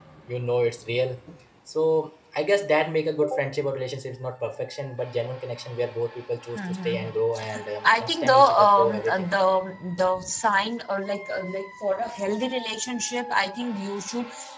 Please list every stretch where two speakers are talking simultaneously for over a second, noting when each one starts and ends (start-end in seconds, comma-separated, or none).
7.8-9.3